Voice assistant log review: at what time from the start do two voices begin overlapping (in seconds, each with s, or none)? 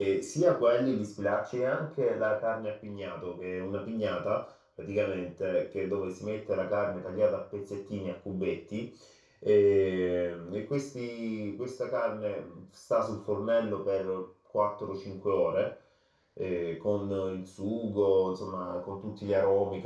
none